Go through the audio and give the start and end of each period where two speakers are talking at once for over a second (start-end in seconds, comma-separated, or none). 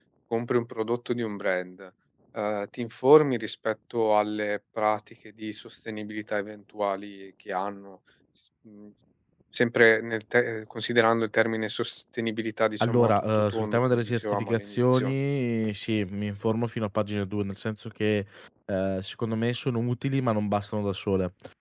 12.8-15.1